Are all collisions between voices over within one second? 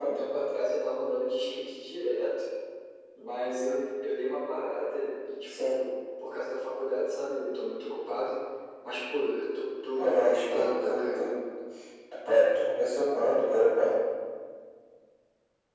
No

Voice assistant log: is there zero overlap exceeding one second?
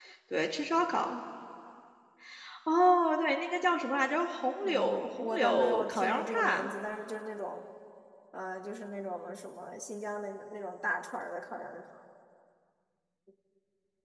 No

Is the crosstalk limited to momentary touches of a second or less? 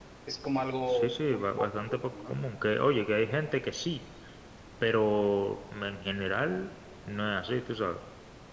No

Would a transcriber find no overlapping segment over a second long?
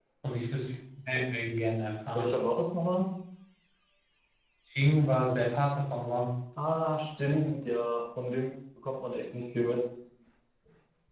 Yes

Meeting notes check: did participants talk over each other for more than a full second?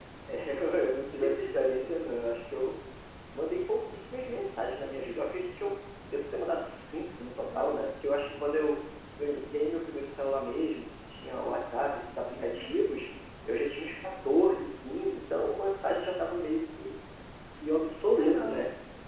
No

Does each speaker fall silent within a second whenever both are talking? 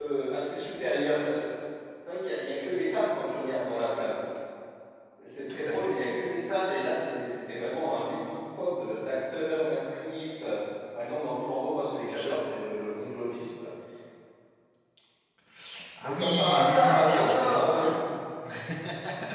No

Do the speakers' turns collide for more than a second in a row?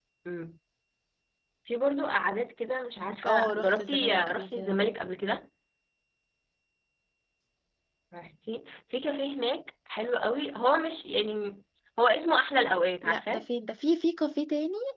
Yes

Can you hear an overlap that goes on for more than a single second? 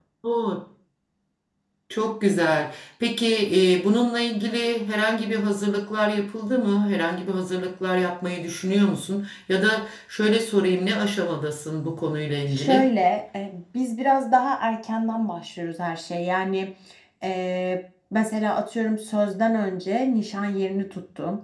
No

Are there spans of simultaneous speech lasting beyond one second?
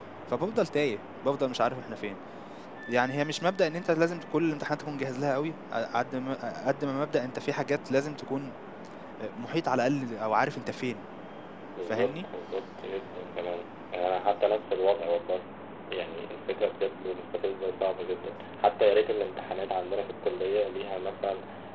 No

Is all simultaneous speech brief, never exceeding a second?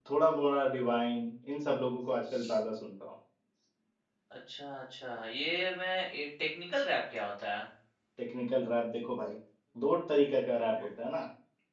Yes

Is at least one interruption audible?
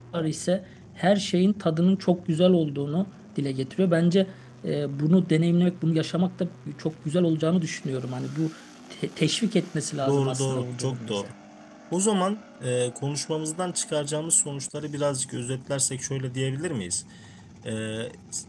Yes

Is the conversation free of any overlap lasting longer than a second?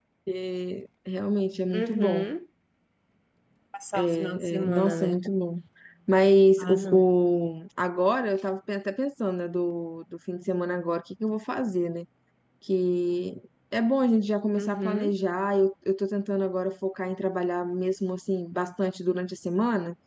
No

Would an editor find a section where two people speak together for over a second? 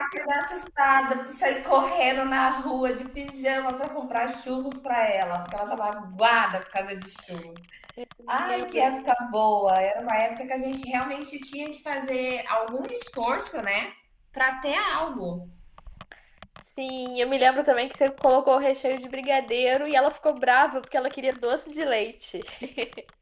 No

